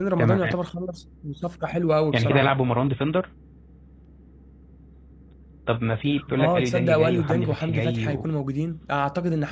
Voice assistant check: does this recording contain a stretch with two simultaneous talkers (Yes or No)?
Yes